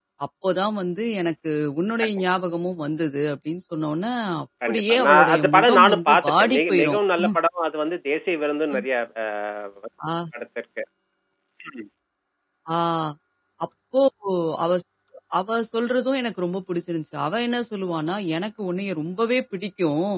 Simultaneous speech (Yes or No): Yes